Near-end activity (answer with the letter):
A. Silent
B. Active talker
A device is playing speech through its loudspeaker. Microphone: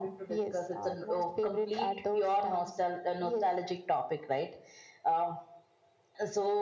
A